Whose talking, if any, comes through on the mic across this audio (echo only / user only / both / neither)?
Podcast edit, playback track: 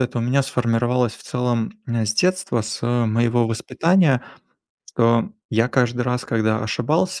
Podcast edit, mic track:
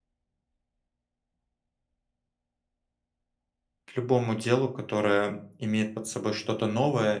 user only